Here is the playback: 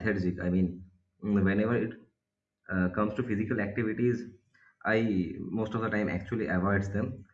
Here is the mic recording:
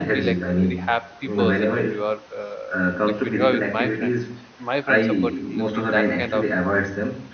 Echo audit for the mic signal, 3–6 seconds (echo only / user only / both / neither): both